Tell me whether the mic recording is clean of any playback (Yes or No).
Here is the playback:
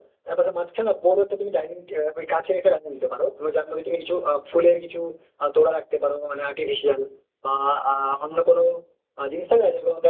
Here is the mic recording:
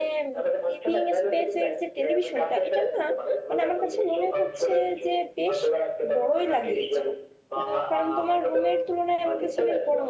No